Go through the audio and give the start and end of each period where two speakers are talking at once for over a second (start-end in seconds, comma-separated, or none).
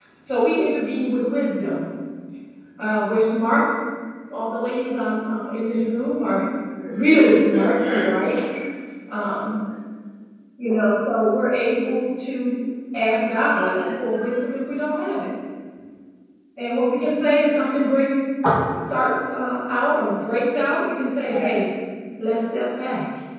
6.9-8.1